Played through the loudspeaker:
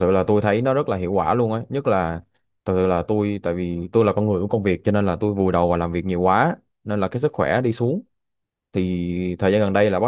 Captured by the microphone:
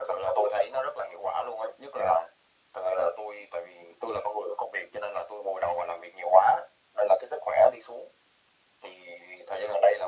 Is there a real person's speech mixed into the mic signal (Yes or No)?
No